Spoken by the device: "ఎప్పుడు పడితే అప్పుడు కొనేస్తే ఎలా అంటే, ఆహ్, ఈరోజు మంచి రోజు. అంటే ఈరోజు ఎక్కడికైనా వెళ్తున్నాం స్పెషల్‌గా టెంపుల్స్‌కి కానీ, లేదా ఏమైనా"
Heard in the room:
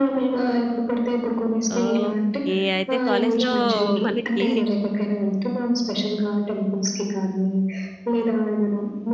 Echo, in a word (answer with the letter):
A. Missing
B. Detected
B